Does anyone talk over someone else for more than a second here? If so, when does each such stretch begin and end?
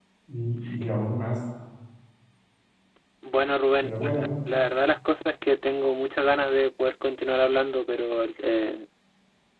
none

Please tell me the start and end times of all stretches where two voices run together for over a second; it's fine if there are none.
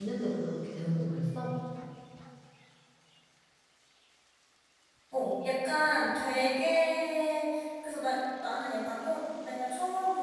none

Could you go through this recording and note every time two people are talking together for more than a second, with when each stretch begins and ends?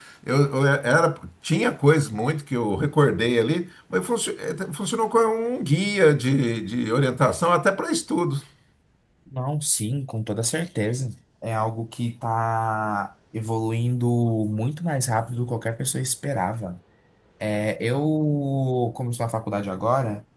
none

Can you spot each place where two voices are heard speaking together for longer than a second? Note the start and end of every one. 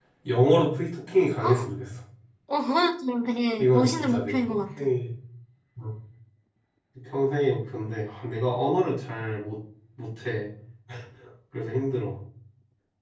3.6-4.9

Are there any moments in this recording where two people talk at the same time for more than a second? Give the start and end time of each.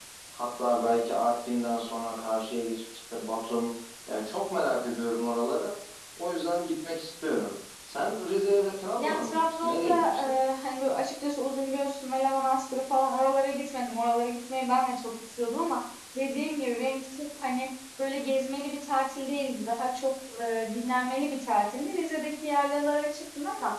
9.0-10.3

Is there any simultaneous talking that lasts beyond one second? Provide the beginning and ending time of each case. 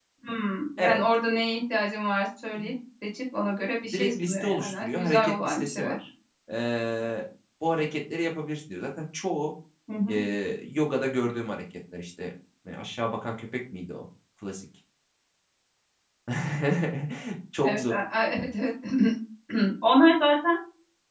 3.9-6.0

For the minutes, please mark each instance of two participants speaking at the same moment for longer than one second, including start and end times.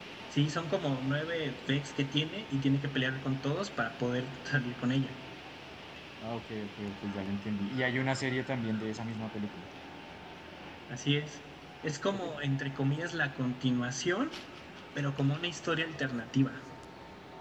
none

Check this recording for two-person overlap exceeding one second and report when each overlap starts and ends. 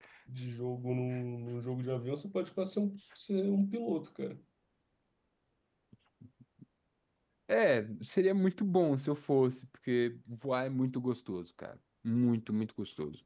none

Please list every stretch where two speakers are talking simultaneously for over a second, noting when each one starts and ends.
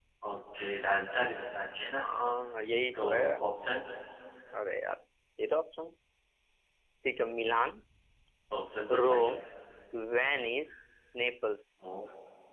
none

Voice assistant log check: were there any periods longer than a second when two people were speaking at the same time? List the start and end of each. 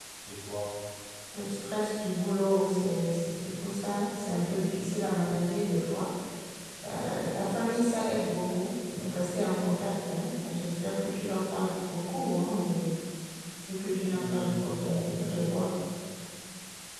14.1-15.7

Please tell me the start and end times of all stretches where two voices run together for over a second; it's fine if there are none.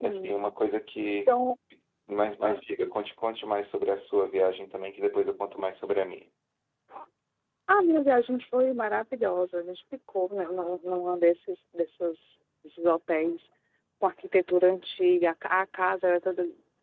none

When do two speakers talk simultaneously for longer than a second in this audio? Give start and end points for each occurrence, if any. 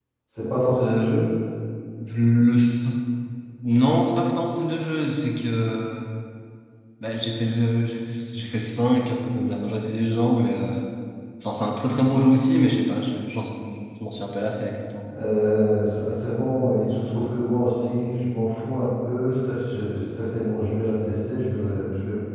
none

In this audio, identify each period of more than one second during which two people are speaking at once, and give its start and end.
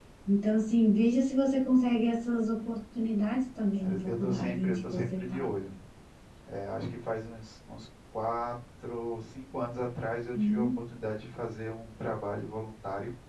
4.0-5.5

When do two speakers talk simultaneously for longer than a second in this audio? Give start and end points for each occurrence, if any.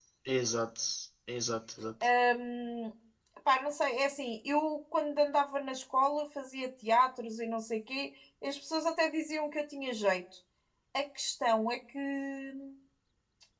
none

